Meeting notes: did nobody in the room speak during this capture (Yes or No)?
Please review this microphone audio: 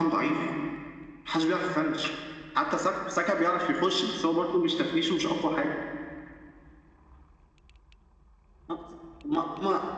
Yes